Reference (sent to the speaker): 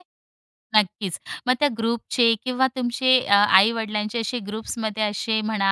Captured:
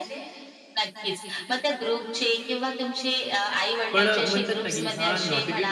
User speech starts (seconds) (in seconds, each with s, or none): 3.9 s